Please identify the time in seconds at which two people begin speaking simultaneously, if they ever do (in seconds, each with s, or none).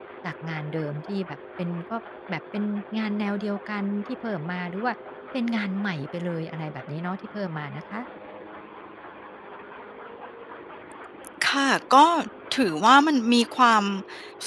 none